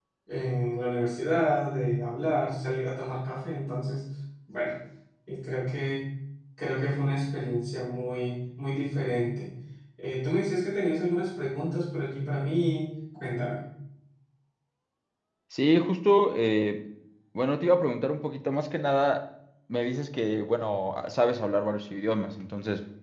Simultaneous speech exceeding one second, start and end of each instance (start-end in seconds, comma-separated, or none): none